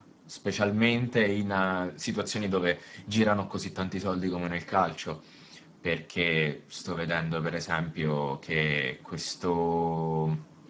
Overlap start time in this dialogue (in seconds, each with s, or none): none